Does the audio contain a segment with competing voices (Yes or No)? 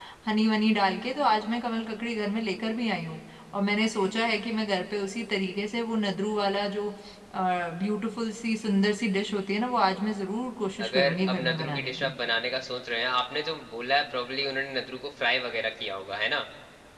Yes